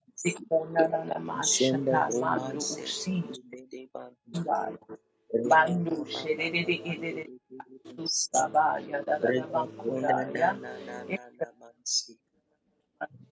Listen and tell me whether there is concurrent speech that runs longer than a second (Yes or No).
Yes